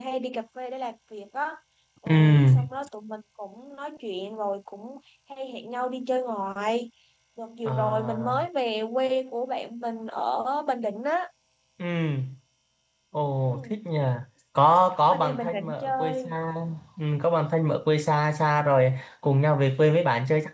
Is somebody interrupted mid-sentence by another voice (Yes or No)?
Yes